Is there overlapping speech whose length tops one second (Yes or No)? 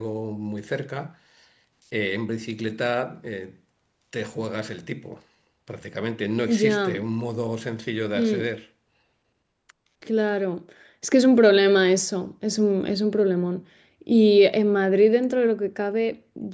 No